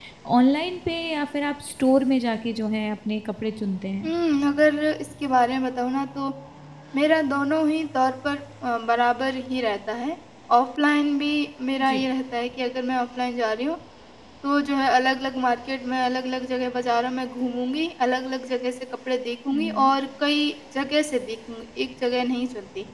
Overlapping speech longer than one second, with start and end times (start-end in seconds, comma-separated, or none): none